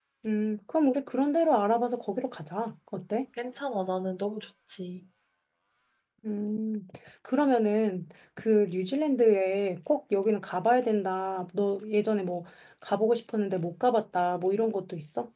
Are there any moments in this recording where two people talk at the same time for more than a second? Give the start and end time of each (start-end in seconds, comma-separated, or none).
none